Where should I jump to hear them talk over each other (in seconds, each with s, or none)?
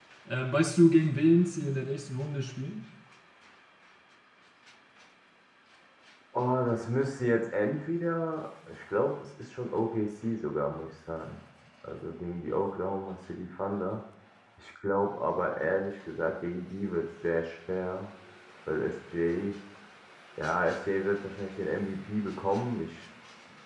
none